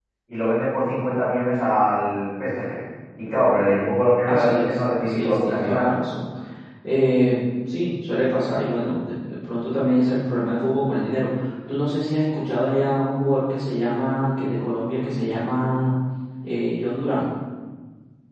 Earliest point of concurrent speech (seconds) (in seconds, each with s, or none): 4.3 s